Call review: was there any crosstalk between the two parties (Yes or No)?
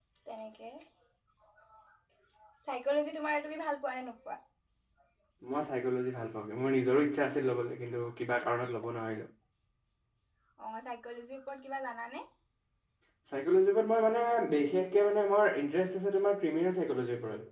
No